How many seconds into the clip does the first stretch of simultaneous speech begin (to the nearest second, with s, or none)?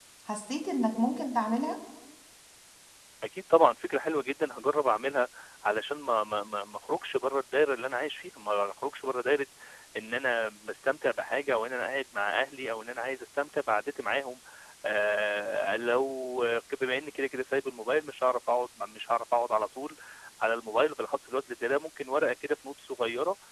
none